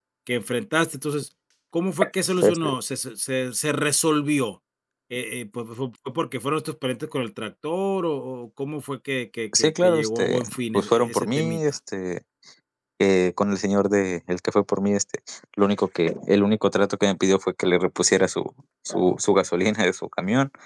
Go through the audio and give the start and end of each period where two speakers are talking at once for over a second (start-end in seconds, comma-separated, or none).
9.6-11.6